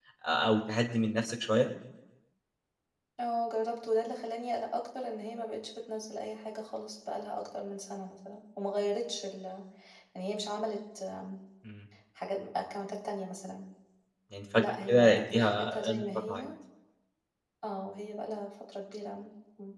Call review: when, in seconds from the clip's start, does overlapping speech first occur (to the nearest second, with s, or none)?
15 s